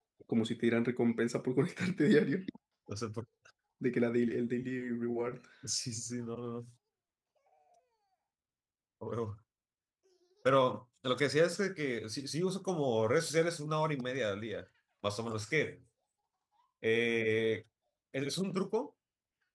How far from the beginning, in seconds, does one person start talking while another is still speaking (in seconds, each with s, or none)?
none